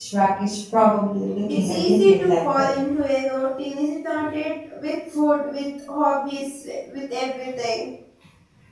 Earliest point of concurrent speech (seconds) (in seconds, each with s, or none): 1.5 s